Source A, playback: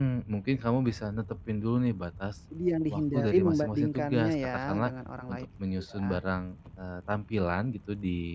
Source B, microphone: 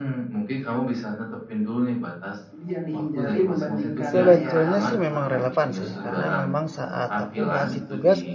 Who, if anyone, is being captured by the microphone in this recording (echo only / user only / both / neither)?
both